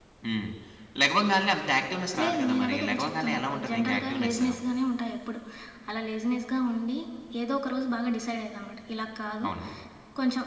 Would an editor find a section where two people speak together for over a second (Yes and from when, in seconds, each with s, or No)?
Yes, from 2.2 s